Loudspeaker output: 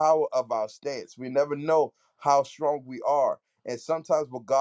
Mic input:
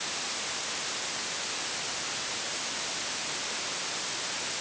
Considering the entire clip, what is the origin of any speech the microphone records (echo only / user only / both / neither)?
neither